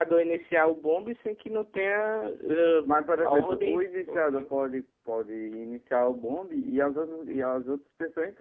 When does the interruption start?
3 s

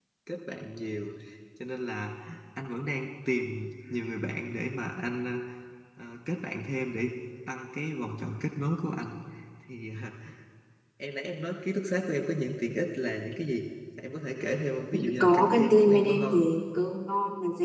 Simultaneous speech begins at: 15 s

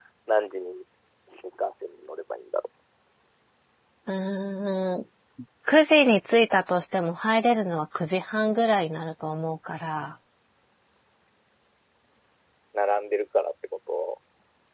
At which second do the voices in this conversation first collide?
none

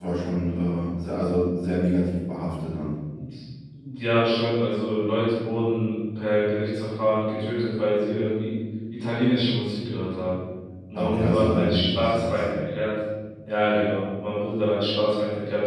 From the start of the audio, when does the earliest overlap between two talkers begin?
11 s

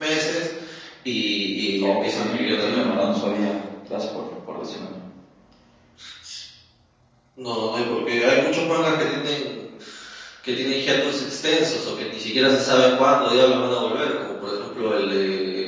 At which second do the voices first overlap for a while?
2 s

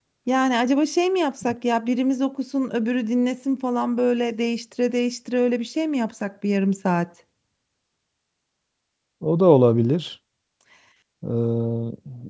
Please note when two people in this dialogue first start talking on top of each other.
none

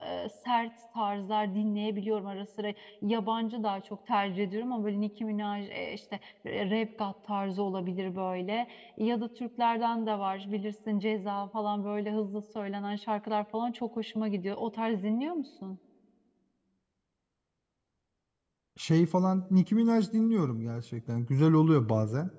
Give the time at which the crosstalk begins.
none

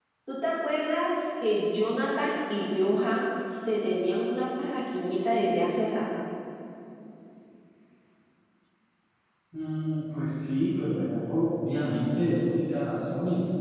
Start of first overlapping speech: none

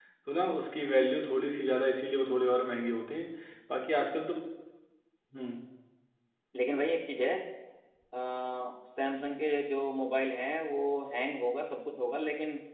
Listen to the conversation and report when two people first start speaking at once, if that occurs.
none

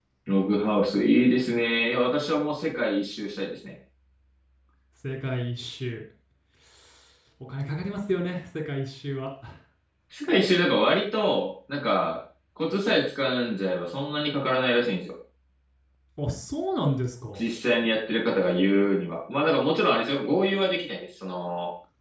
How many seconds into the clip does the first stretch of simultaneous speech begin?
none

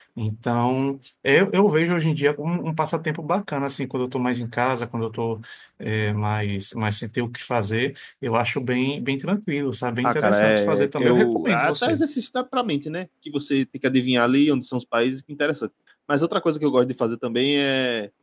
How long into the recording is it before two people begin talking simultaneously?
10 s

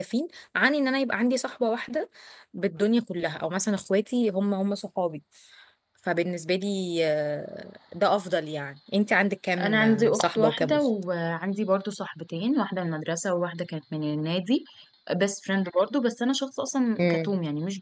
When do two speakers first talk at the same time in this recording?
10 s

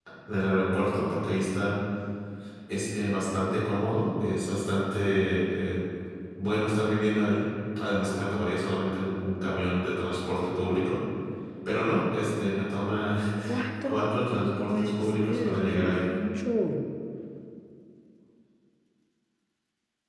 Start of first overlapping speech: 14 s

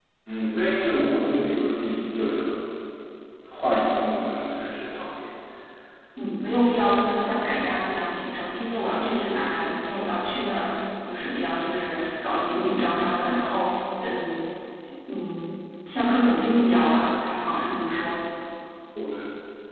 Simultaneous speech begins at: none

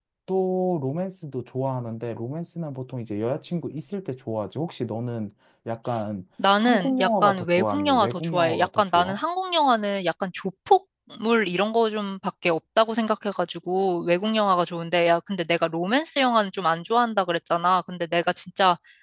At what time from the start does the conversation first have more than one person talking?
6 s

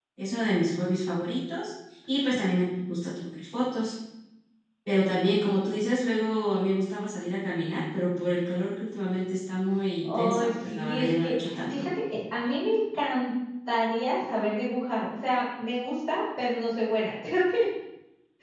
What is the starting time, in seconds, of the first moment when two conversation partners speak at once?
10 s

